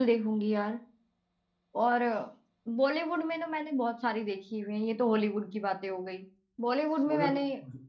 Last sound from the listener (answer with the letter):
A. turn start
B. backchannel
B